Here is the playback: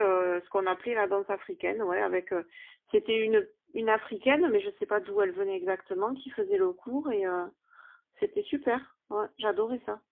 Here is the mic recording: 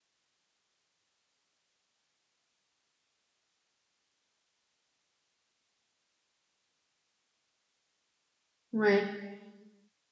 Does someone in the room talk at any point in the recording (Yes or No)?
Yes